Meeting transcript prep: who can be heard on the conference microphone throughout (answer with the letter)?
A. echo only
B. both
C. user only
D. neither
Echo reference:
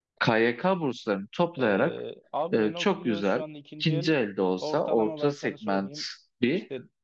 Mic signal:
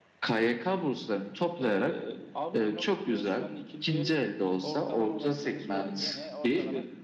B